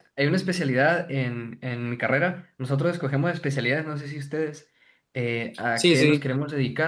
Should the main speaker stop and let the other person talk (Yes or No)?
No